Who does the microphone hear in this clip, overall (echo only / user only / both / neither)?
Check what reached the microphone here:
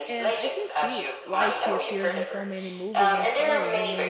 both